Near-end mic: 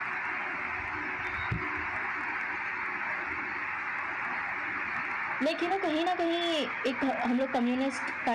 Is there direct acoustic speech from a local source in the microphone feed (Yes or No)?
Yes